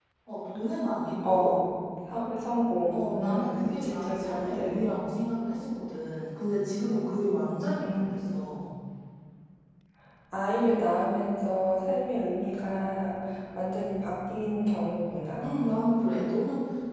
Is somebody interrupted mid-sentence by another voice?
Yes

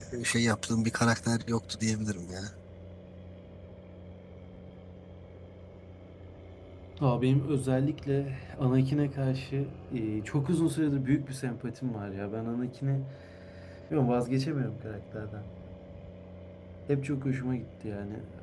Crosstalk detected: No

